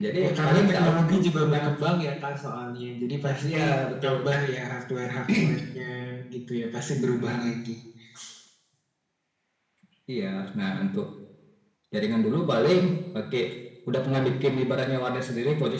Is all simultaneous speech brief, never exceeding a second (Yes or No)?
No